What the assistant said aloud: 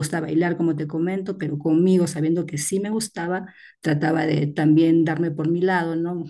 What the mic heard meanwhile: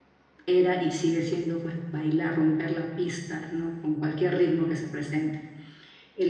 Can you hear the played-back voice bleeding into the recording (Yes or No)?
No